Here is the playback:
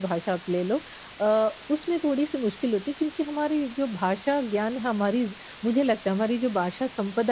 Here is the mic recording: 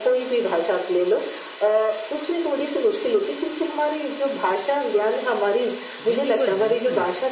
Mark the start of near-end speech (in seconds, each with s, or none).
6.0 s